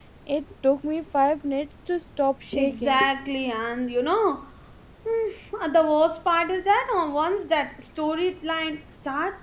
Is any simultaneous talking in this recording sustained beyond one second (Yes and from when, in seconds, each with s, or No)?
No